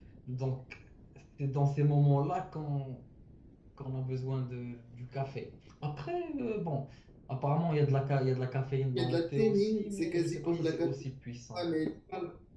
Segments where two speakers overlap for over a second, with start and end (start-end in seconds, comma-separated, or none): 8.9-10.9